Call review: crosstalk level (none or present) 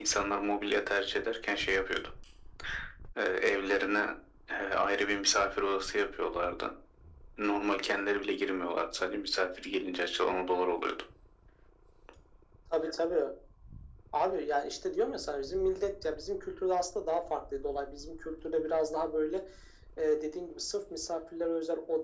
none